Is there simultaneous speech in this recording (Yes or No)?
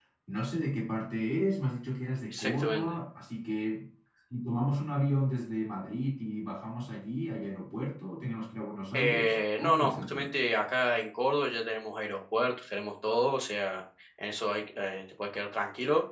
Yes